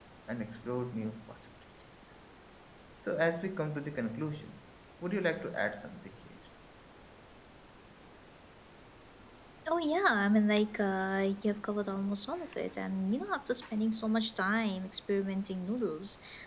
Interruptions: none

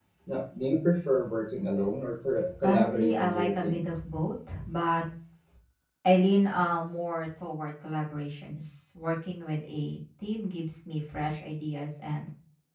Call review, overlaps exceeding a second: present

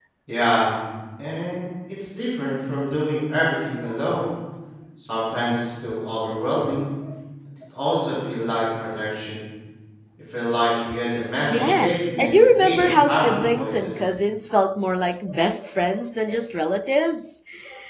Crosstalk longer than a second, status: present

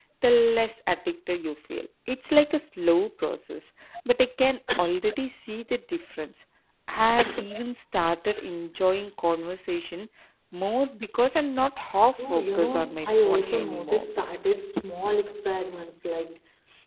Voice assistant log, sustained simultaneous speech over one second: present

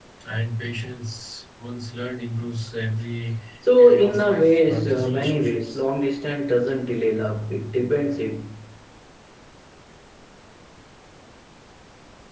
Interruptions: present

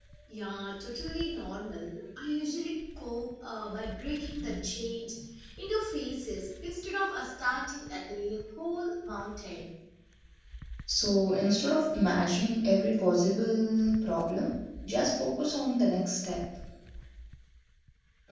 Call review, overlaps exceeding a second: none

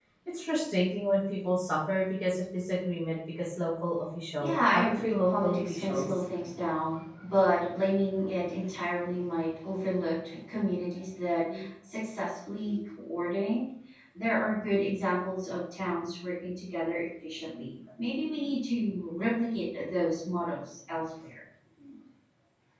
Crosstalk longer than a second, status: present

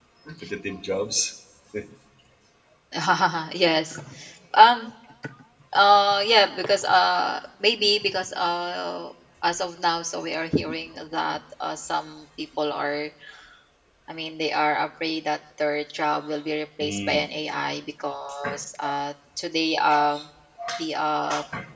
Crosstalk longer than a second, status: none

